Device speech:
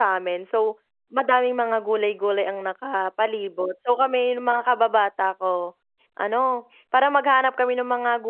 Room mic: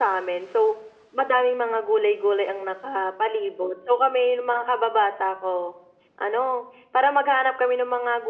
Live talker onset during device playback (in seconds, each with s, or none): none